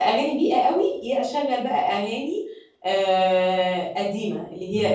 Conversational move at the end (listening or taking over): listening